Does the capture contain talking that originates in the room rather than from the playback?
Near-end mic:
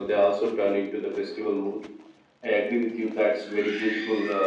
No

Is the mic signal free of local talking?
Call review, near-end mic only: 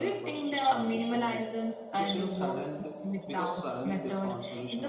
Yes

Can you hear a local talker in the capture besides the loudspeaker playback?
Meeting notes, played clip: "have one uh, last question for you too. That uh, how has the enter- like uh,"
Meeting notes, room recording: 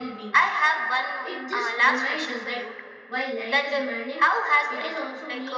Yes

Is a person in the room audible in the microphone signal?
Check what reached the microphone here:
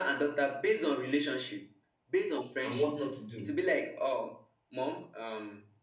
Yes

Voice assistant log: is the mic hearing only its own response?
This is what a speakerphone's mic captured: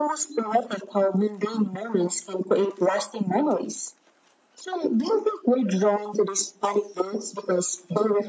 Yes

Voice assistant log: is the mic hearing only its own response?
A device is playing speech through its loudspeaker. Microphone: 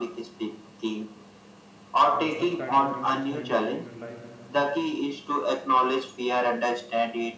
No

